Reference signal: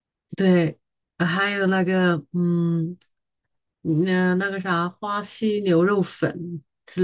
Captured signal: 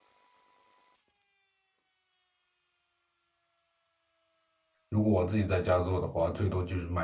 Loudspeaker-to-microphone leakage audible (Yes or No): No